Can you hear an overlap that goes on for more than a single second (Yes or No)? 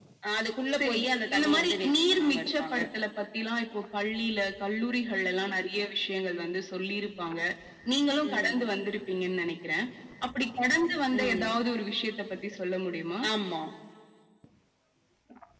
Yes